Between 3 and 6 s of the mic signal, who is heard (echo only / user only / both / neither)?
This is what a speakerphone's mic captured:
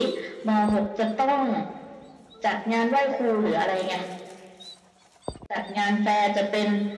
echo only